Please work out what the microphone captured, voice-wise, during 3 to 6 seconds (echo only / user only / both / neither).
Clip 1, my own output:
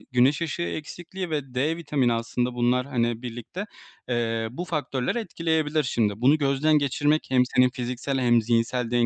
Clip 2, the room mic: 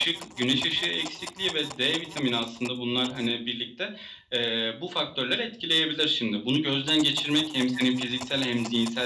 echo only